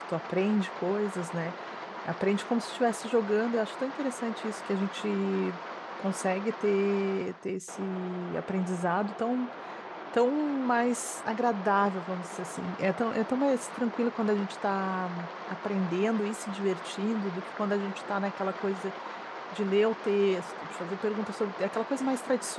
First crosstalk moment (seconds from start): none

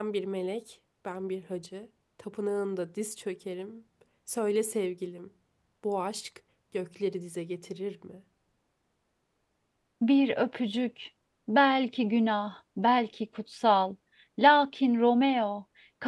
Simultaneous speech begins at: none

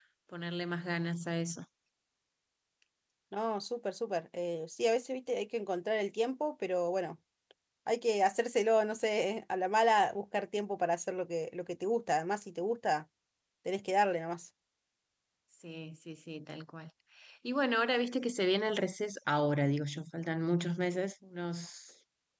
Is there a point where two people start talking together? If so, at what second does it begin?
none

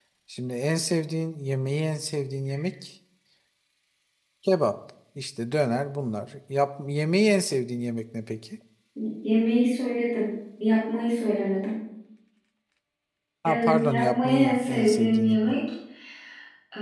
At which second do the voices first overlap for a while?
13 s

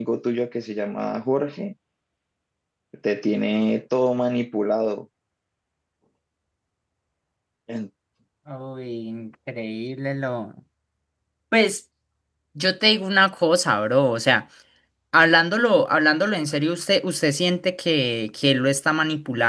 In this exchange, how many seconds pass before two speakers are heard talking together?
none

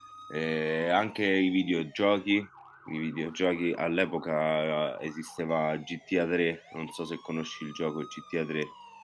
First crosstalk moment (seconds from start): none

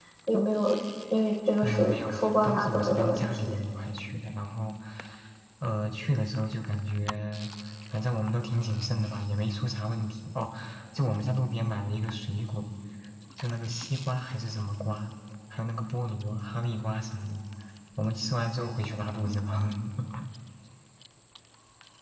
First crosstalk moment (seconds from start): 2 s

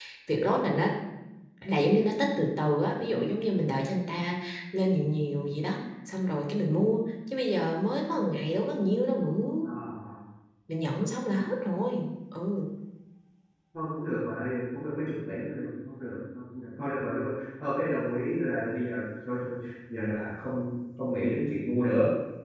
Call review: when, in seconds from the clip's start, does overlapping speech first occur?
none

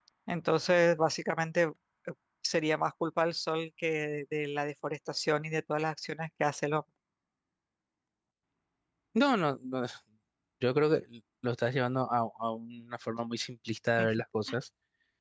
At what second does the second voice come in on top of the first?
none

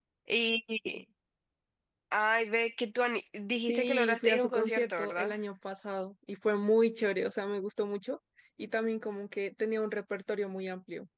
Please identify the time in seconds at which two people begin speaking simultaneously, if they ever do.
4 s

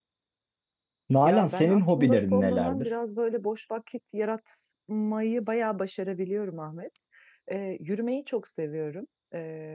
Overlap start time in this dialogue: 1 s

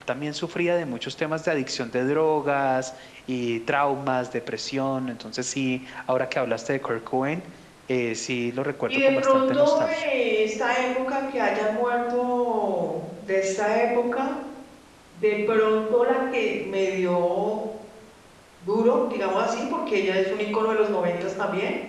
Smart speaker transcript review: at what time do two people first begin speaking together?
9 s

